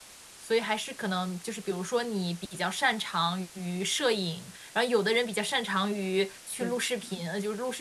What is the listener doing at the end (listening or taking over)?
listening